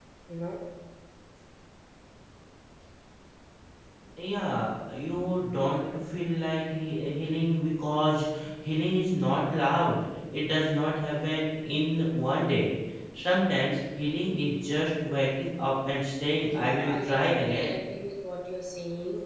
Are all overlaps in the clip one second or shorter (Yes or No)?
No